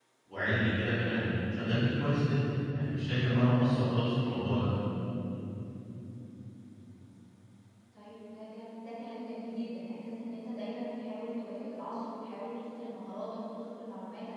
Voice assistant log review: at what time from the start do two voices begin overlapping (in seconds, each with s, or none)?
none